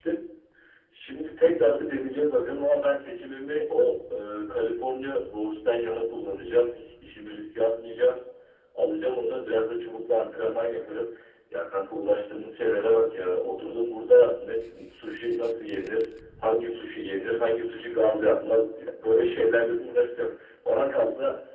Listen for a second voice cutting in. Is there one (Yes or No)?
No